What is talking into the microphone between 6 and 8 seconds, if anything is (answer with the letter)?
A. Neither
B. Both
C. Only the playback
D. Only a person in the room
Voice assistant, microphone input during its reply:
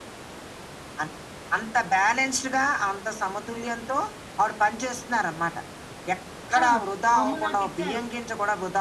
B